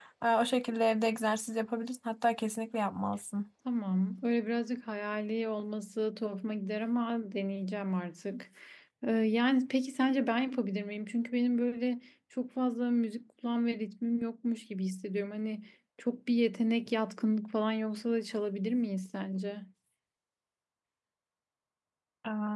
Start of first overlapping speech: none

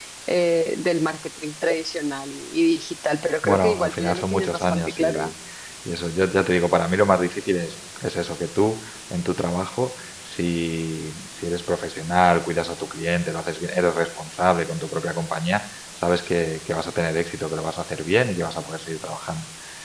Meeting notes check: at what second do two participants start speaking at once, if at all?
3.4 s

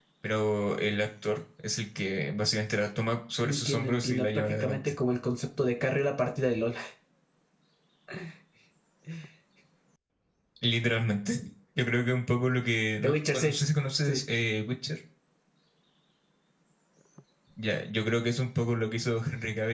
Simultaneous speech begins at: 3.4 s

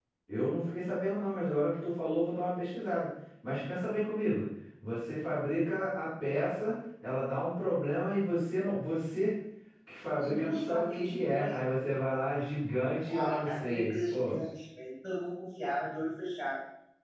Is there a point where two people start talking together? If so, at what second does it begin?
10.2 s

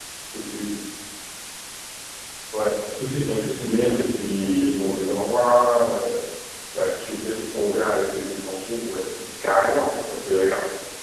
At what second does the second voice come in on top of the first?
3.4 s

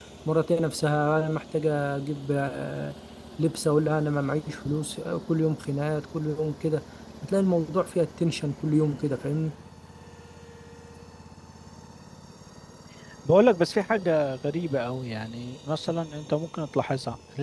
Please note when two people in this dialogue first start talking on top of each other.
none

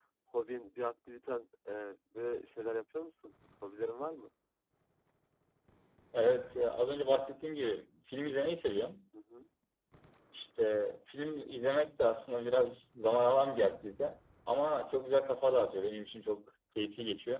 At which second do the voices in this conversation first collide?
none

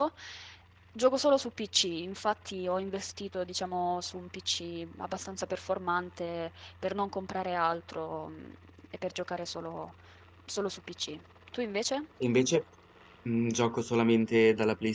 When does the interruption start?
none

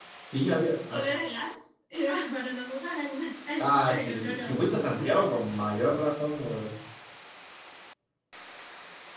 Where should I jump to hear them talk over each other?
3.6 s

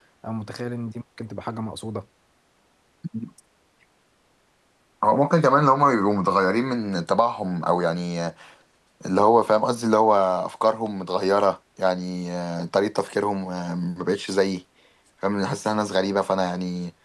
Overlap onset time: none

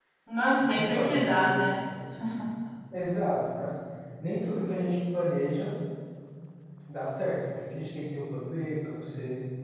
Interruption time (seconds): 0.6 s

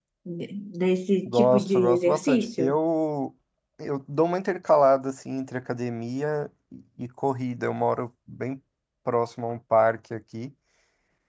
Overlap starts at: 1.3 s

